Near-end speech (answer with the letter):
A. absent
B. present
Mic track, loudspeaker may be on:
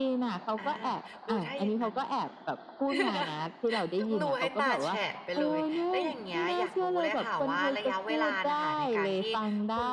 B